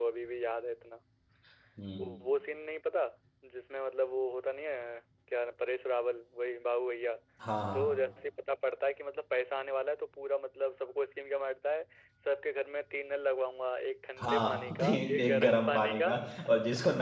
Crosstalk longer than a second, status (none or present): present